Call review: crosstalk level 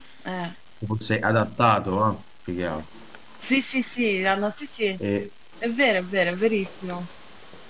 none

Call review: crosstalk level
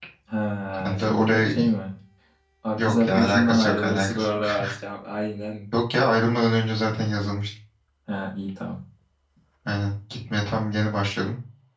present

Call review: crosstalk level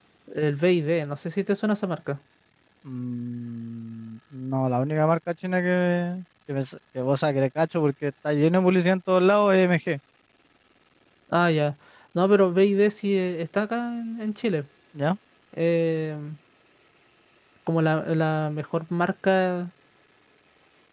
none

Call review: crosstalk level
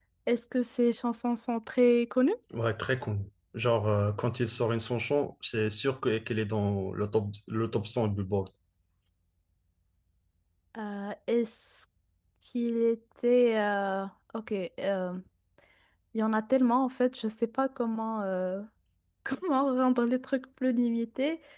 none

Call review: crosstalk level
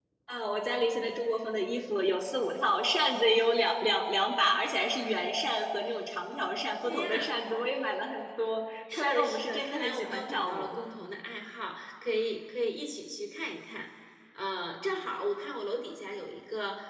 present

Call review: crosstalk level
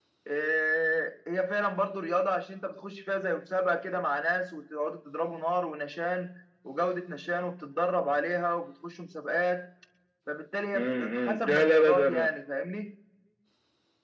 present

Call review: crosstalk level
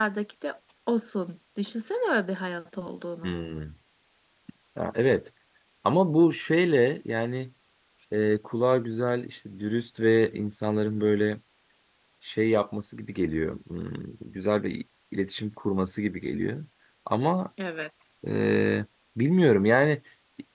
none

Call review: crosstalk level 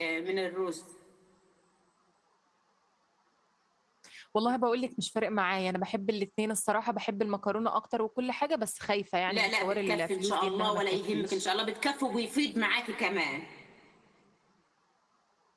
present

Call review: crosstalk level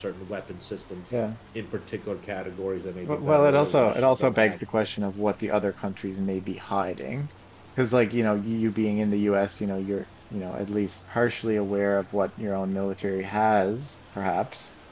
present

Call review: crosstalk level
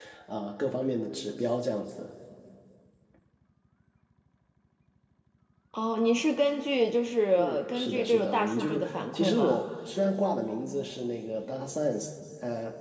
present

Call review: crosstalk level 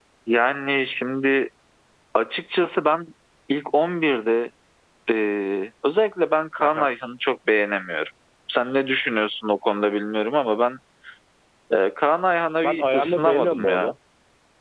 present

